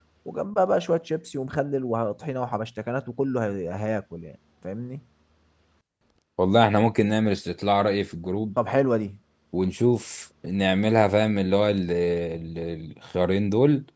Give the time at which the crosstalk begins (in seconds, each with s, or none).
none